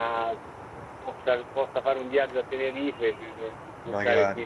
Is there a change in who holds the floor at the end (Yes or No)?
No